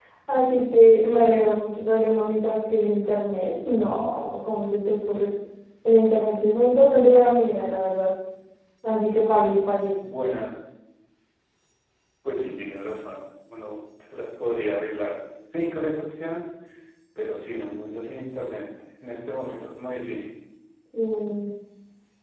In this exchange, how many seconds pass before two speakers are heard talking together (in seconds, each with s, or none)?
none